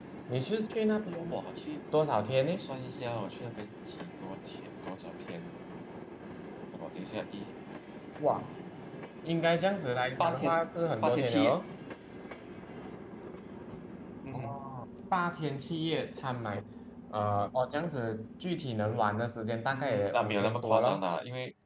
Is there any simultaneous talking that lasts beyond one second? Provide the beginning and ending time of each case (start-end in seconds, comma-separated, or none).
19.7-21.0